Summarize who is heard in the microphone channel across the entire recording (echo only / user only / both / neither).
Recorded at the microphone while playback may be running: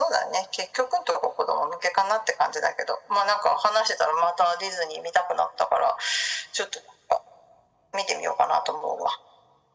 echo only